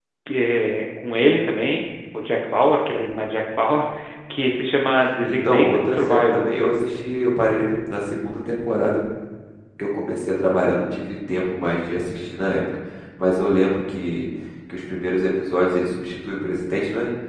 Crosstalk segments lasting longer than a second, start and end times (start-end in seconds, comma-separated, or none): 5.3-6.5